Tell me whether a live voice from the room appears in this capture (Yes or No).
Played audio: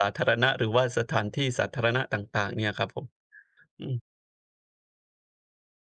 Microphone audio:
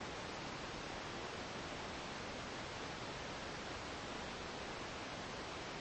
No